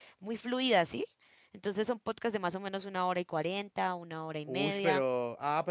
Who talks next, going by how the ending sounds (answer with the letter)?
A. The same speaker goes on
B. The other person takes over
B